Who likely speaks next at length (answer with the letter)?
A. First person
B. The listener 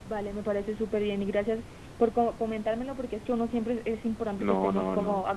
B